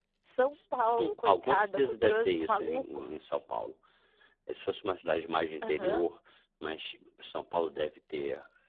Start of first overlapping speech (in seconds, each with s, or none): 0.8 s